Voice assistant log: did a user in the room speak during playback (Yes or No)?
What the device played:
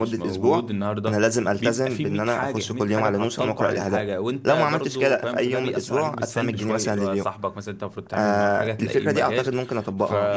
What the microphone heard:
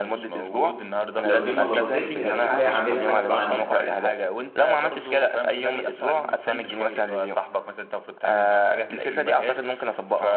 Yes